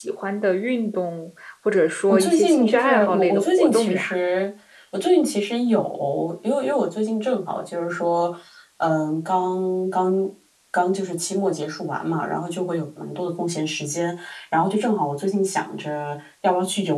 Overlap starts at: 2 s

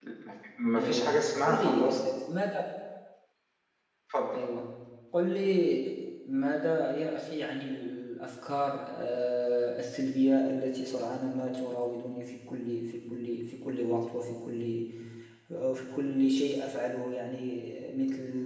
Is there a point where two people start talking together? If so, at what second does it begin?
1 s

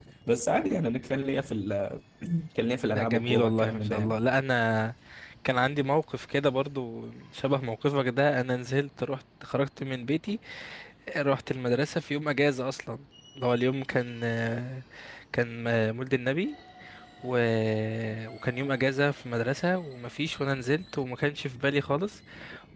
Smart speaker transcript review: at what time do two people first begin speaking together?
3 s

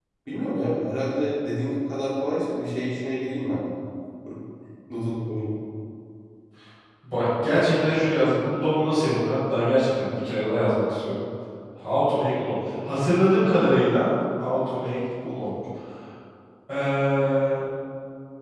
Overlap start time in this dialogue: none

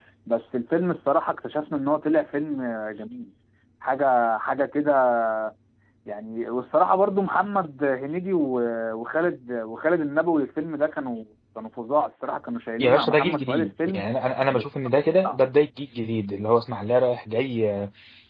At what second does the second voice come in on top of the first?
13 s

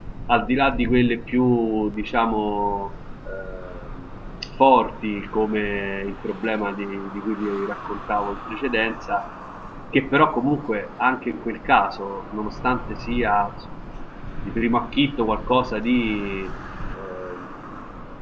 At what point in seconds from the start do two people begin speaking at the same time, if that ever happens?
none

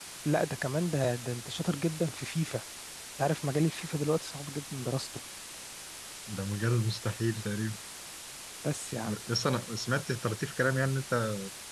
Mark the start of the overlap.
none

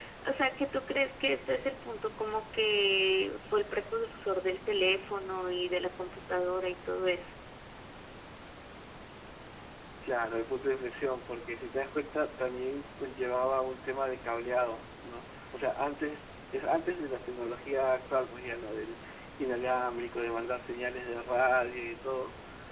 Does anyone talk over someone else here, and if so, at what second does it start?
none

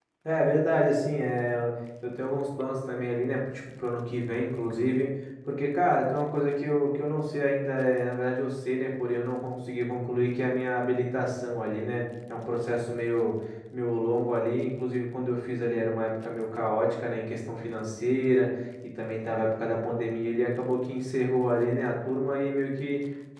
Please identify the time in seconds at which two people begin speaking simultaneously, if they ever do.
none

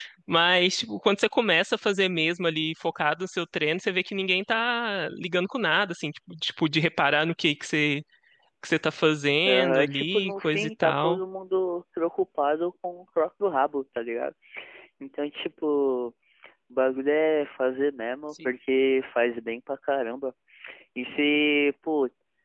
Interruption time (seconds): 9 s

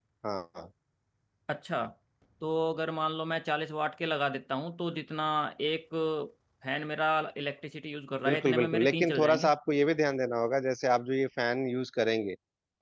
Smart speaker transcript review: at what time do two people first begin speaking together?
8 s

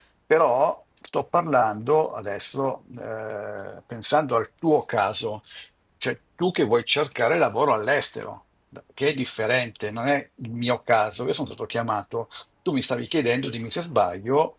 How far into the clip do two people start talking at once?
none

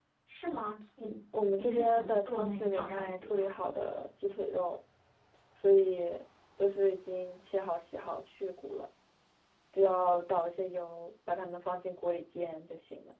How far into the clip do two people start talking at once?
2 s

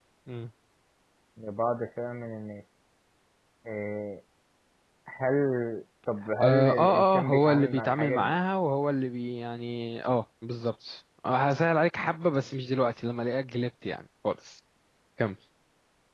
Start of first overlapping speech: 6 s

